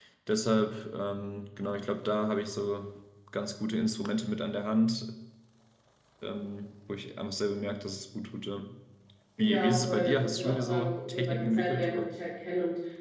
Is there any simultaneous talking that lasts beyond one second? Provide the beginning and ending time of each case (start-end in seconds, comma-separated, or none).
9.4-12.1